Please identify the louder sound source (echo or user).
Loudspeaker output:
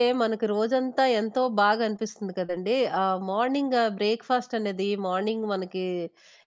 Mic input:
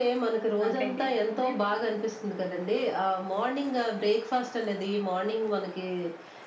echo